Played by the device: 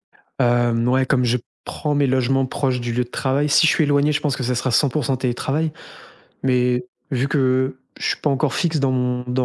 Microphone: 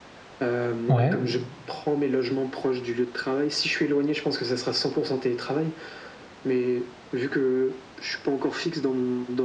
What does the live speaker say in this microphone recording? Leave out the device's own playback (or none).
Ouais,